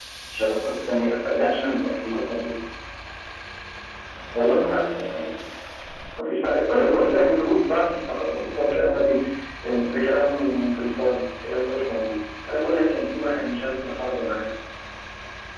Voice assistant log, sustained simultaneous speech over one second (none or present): present